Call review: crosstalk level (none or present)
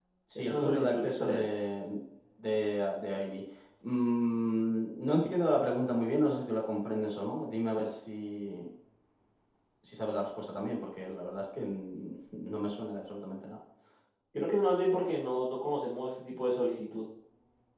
present